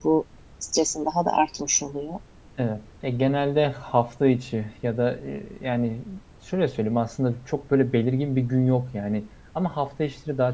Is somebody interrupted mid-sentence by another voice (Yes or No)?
No